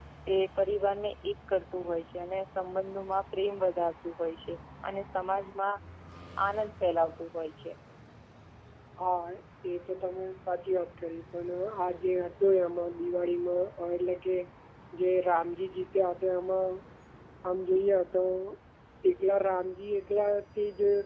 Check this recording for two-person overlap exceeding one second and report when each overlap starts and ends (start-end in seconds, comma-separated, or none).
none